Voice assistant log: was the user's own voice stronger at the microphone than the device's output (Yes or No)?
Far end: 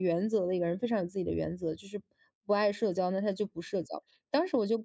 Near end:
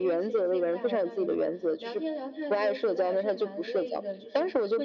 No